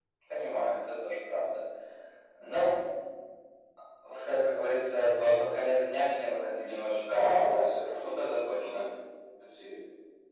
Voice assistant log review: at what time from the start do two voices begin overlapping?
7.0 s

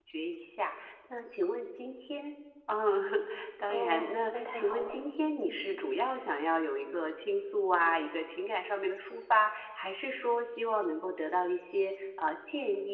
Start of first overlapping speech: 3.7 s

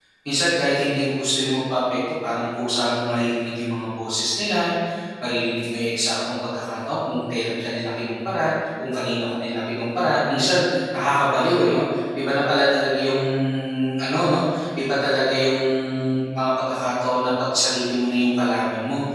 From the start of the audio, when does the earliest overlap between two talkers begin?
none

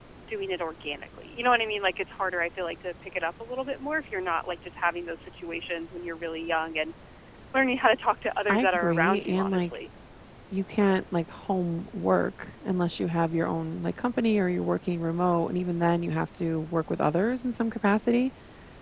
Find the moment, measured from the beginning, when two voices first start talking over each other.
8.5 s

